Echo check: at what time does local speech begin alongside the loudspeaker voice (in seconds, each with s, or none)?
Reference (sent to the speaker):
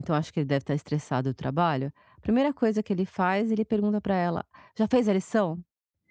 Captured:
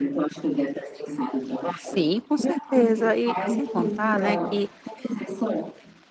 1.8 s